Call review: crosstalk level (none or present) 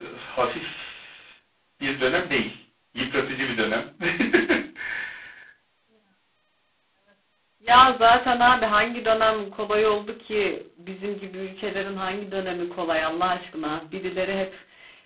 none